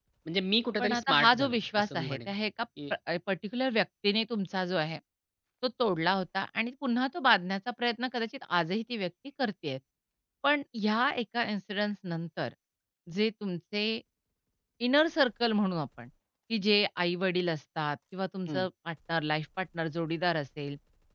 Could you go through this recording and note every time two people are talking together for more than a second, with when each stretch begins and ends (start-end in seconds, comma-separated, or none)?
0.8-2.3